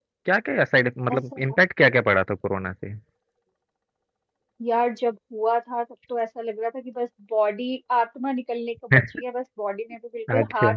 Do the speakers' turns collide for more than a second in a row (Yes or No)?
No